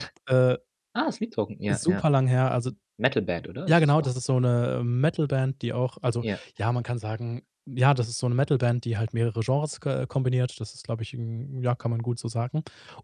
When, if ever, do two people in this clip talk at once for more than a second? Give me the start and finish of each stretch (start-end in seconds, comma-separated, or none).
none